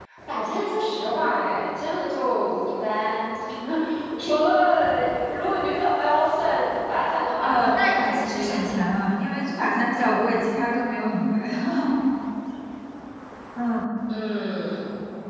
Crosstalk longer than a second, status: present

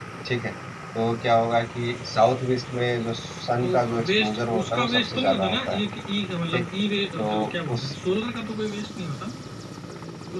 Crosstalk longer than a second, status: present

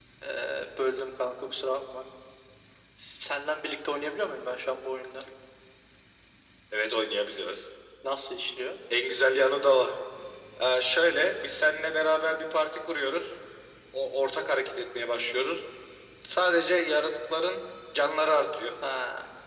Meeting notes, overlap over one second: none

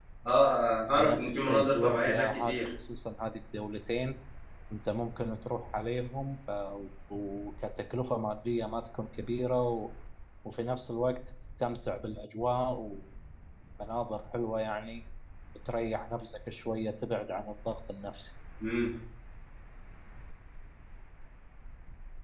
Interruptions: present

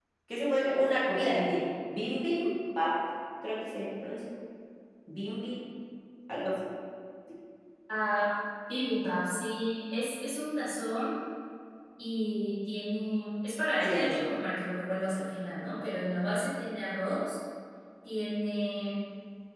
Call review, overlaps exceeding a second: none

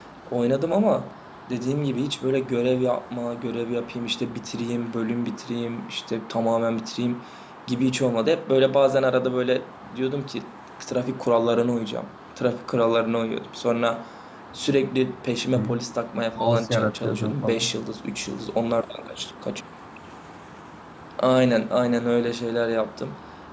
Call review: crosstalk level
present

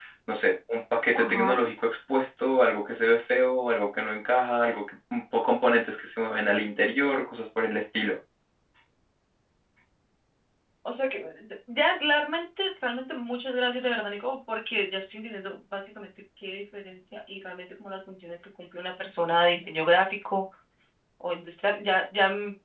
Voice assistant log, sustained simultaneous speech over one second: none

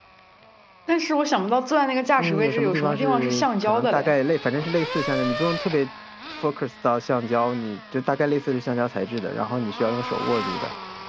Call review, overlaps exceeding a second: present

